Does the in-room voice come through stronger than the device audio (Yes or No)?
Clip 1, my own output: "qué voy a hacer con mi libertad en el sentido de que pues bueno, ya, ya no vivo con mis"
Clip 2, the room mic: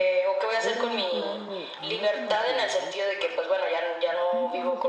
No